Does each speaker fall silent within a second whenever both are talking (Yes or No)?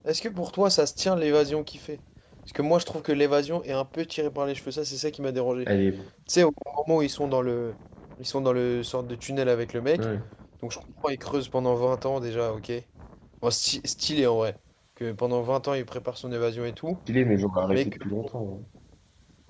Yes